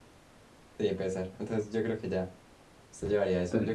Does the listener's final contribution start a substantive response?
No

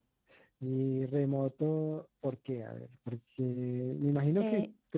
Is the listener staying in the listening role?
Yes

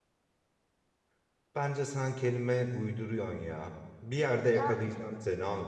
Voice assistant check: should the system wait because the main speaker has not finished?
Yes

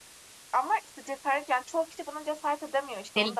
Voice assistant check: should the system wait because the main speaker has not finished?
No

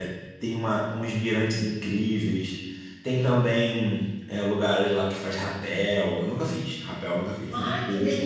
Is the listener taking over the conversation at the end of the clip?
Yes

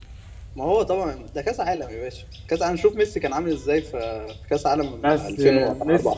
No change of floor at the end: No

